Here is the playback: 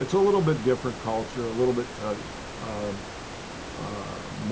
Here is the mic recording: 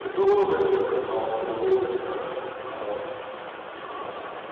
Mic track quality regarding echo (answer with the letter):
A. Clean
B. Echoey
B